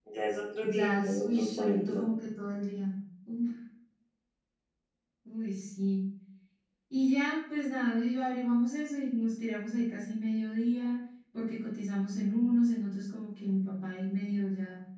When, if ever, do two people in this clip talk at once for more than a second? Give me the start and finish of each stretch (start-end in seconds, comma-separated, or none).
0.6-2.0